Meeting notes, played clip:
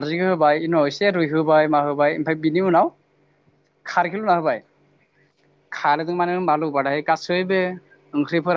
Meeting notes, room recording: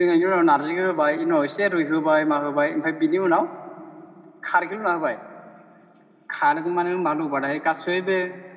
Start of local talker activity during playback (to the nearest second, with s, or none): none